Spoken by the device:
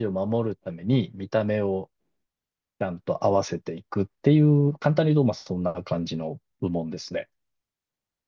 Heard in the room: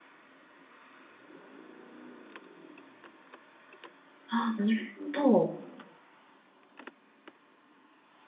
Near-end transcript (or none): ああ、なるほど。